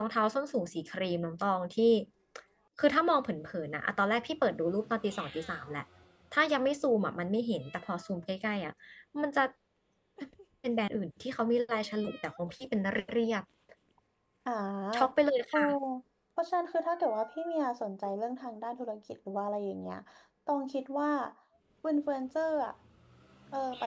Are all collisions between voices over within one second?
Yes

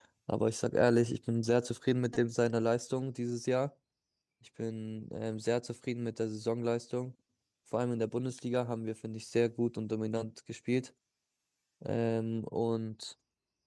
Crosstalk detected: No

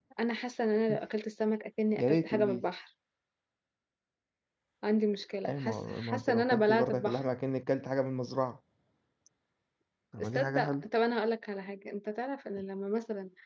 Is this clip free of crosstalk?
No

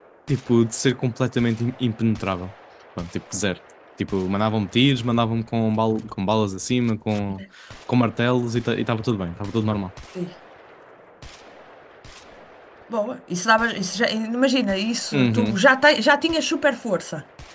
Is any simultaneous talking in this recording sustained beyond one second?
No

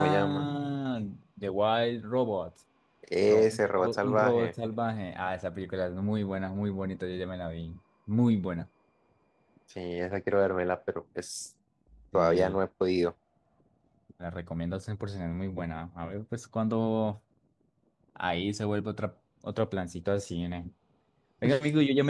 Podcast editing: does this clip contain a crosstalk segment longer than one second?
Yes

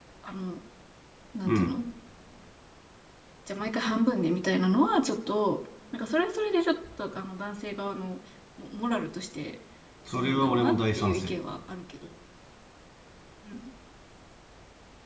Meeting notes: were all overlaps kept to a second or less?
No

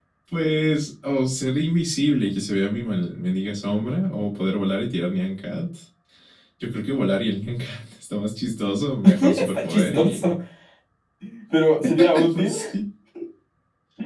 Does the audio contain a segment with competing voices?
Yes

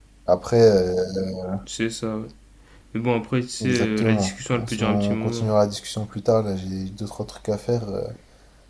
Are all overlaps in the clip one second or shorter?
No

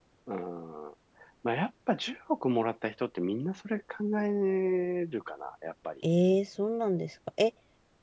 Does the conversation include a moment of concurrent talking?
No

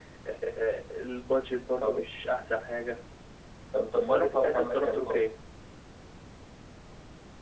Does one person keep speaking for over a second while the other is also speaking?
Yes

